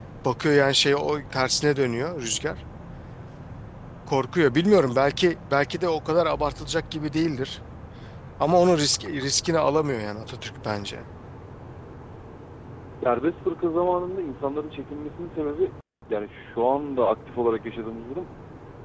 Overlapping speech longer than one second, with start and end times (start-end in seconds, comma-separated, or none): none